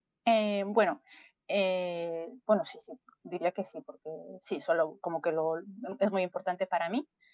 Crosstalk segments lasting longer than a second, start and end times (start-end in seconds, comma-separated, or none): none